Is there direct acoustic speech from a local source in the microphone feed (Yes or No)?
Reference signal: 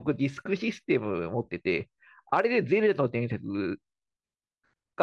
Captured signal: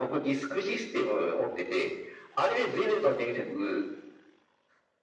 No